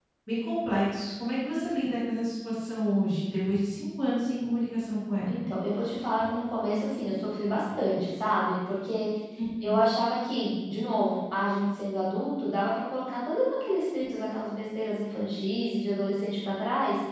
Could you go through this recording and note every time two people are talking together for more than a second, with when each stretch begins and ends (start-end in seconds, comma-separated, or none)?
none